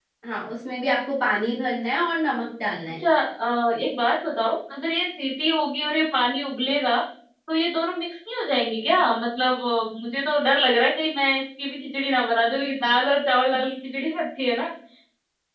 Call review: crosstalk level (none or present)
none